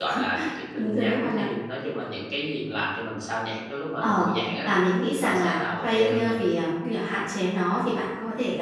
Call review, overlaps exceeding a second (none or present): present